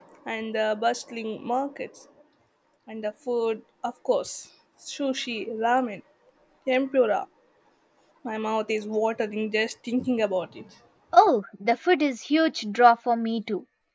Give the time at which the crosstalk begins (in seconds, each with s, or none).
none